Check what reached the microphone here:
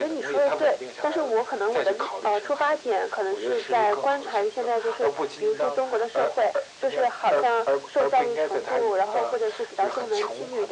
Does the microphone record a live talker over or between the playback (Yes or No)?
No